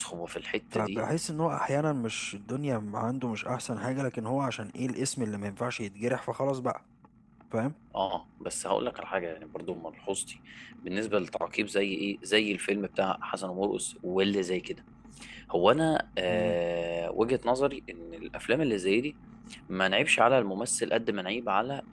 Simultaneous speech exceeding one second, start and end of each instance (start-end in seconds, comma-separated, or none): none